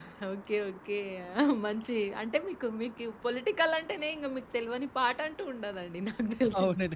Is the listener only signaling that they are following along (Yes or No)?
No